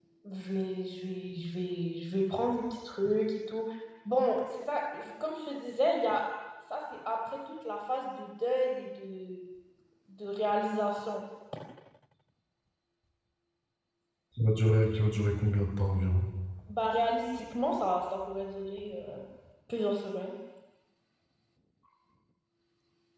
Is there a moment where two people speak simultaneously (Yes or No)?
No